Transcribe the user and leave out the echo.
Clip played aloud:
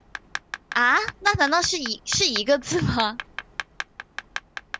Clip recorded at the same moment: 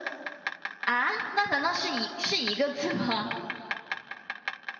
none

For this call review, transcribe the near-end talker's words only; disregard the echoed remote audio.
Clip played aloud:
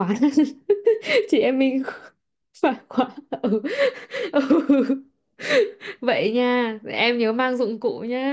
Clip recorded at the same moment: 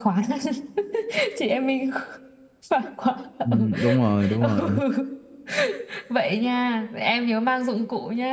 Ừ, đúng rồi, đúng rồi.

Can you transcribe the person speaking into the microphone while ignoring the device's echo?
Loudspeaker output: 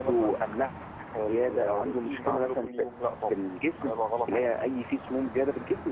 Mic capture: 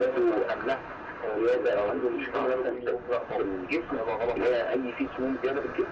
none

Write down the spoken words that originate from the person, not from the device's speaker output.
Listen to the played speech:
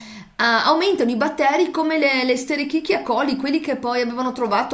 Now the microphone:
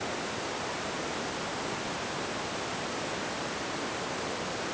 none

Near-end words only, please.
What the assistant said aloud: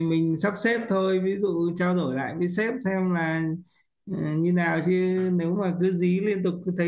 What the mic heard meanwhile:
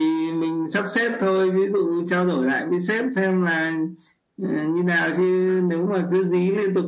none

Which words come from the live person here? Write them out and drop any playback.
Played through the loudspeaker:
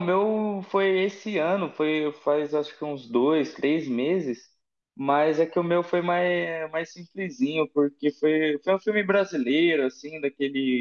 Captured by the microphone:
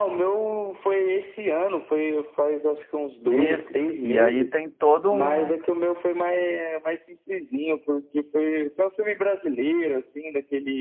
Isso, e aí tem todo um

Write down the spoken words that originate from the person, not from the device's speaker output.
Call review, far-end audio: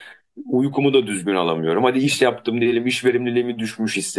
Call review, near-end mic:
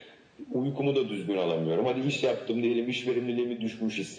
none

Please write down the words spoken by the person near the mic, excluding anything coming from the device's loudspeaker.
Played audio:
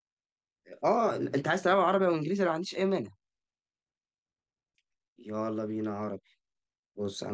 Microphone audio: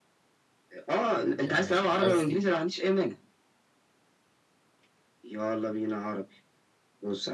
يعني اس

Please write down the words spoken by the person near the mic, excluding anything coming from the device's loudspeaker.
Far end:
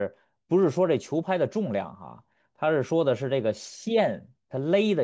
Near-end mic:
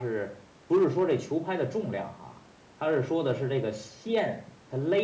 none

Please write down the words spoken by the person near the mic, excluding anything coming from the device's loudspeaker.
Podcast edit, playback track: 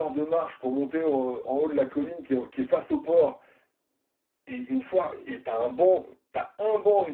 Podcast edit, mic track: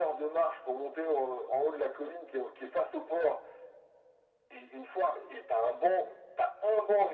none

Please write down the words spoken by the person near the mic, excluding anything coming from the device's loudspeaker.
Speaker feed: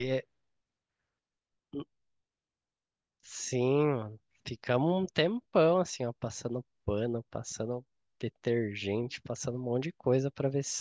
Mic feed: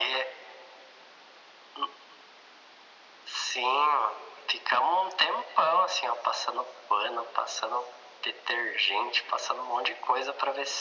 none

